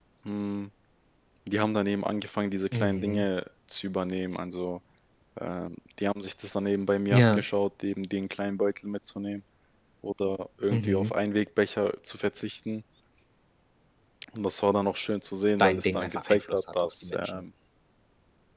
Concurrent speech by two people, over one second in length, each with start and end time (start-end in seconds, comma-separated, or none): 15.6-17.4